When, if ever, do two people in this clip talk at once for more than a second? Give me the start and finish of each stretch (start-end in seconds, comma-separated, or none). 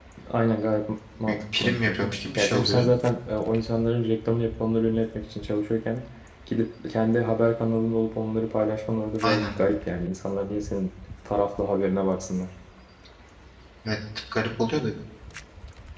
1.3-2.9